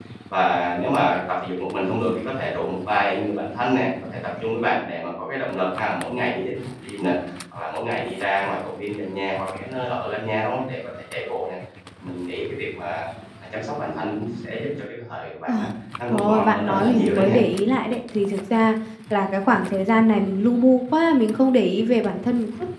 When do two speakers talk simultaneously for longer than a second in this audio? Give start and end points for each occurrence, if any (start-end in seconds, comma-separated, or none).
16.1-17.4